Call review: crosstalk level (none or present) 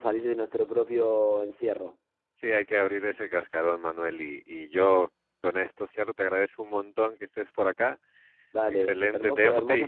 present